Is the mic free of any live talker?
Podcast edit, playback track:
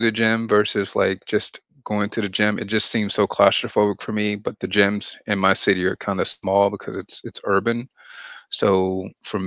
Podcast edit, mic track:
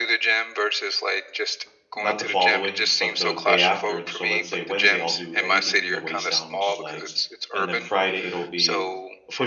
No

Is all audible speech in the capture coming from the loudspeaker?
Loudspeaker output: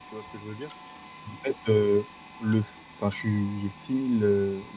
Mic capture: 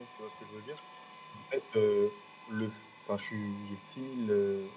Yes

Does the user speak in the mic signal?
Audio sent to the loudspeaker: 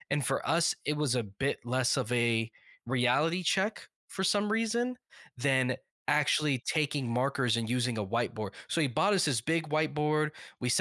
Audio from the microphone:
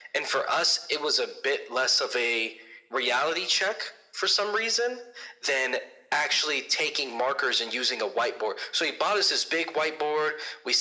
No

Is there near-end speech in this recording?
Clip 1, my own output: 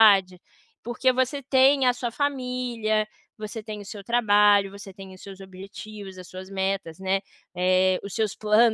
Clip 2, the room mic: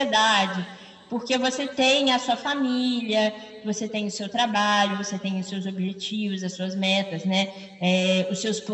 No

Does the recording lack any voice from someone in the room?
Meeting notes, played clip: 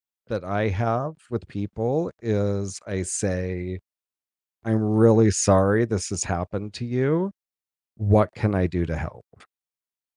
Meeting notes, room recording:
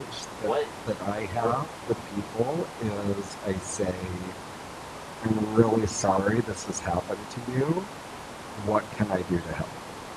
No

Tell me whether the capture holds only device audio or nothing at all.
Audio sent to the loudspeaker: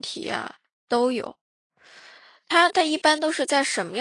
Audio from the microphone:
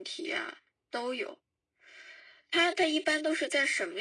Yes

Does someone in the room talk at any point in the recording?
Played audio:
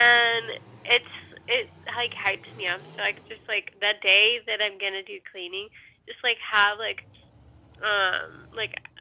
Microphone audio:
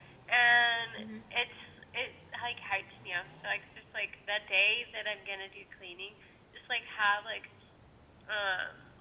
Yes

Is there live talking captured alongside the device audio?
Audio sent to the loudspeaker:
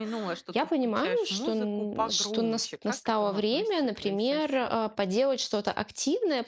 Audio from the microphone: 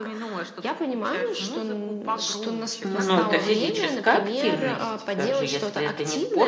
Yes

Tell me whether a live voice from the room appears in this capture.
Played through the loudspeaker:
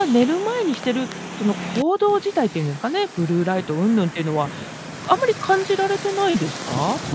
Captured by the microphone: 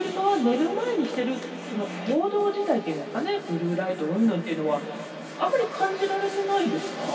No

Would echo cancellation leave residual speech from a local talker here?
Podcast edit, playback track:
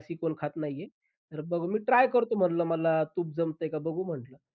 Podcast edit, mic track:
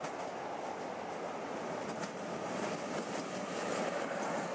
No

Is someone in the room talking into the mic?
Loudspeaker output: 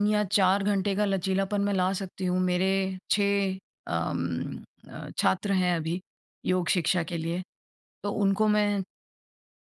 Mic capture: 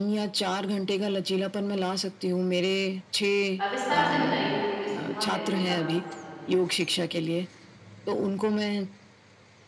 Yes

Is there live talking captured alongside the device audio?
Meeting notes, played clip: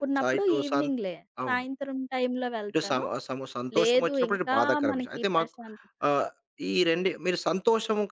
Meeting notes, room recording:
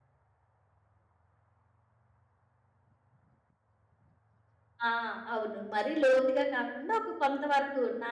Yes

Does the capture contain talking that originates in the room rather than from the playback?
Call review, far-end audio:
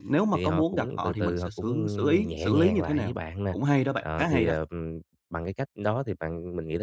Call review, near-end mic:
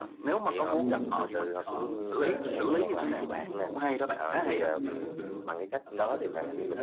Yes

